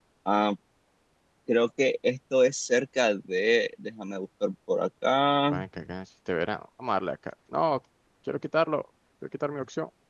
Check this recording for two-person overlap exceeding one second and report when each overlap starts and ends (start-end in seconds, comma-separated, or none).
none